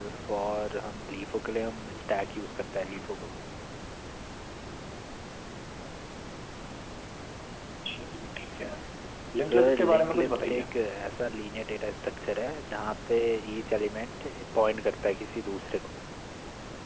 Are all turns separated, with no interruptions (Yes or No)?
No